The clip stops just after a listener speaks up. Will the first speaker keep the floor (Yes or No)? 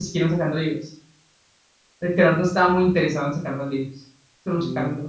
No